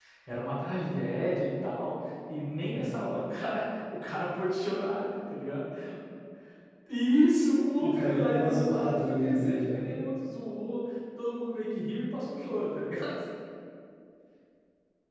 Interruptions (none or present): present